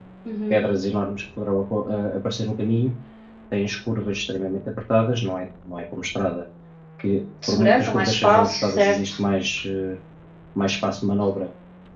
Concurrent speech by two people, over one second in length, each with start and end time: 7.5-9.2

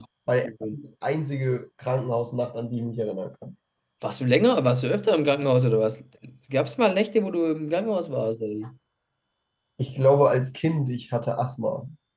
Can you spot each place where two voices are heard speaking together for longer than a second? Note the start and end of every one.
none

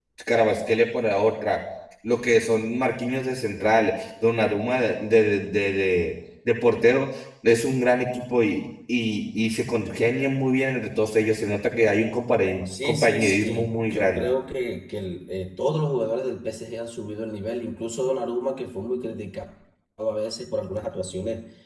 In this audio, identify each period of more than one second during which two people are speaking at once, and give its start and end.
12.8-14.2

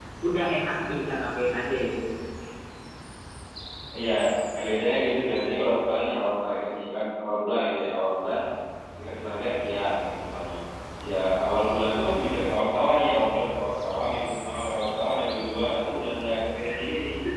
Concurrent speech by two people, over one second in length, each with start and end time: none

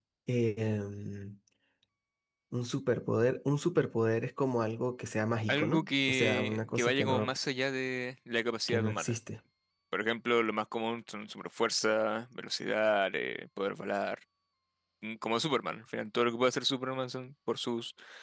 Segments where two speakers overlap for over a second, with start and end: 5.5-7.3

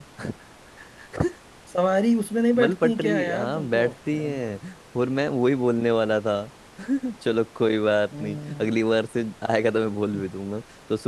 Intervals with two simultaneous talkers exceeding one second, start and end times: 2.6-4.3

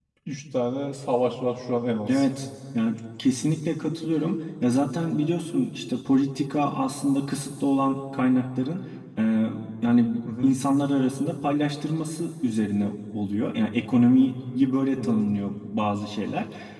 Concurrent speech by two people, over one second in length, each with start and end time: none

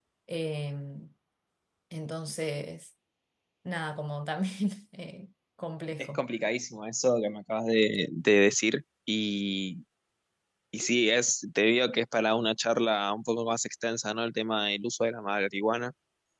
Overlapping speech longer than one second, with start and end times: none

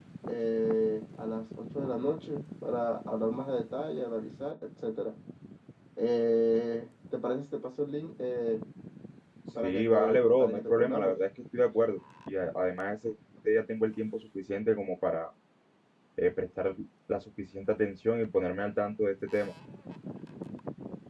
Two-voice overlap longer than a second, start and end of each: 9.6-11.2

